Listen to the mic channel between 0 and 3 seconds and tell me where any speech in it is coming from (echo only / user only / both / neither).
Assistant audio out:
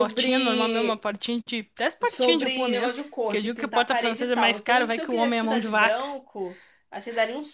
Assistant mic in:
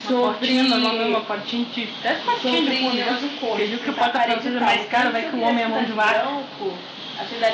echo only